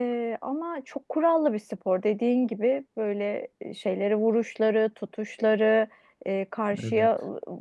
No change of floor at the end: Yes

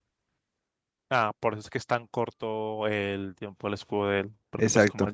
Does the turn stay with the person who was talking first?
Yes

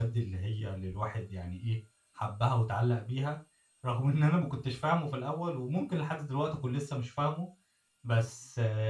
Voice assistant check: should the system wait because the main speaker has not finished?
Yes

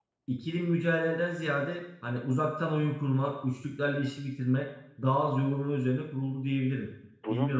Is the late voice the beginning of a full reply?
Yes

